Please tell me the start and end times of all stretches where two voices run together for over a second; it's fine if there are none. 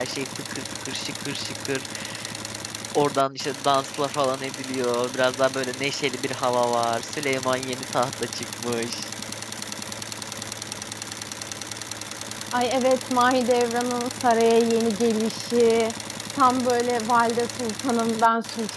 none

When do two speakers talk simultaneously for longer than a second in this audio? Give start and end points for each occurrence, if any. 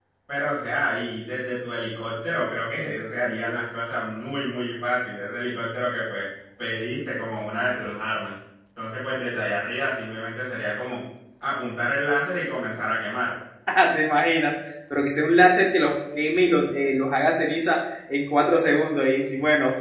none

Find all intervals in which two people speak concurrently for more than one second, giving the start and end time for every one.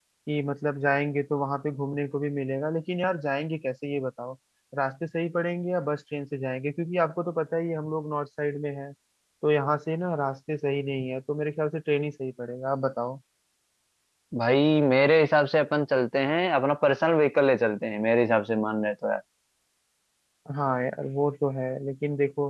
none

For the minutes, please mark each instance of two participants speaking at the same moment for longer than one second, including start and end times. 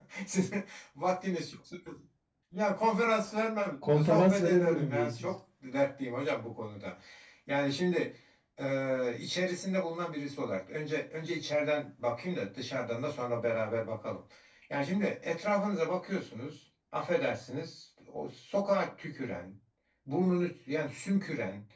3.9-5.3

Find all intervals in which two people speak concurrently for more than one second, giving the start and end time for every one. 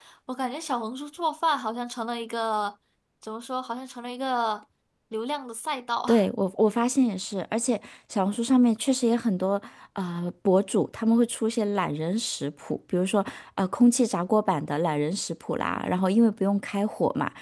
none

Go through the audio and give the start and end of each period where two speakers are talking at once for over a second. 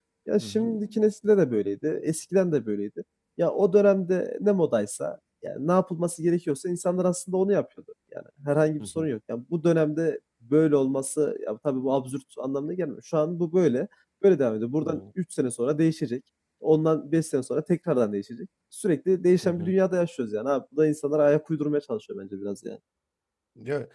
none

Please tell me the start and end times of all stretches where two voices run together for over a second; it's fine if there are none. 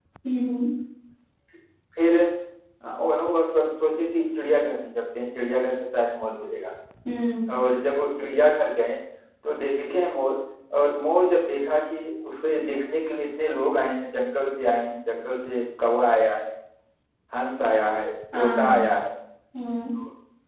none

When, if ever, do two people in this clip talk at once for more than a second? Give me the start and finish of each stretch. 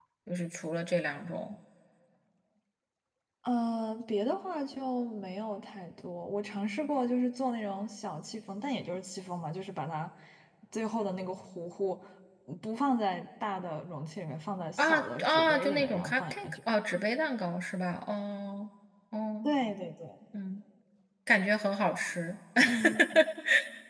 14.8-16.6

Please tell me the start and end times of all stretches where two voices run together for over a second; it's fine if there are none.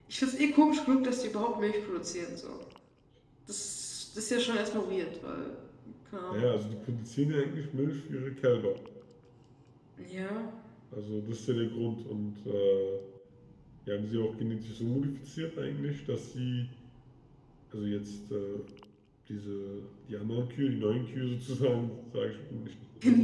none

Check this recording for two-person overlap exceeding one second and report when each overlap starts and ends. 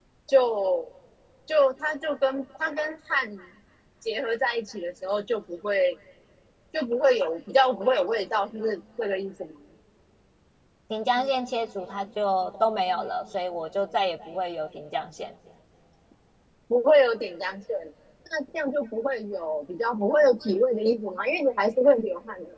none

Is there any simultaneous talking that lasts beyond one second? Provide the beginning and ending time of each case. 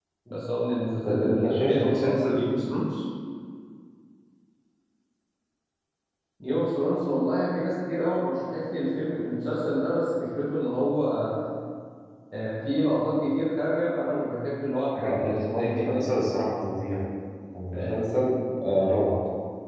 1.1-2.5, 15.0-16.2

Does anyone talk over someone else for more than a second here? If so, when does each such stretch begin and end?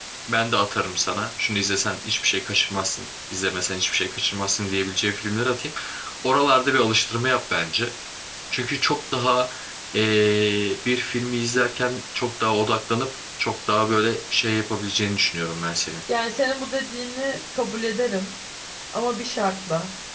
none

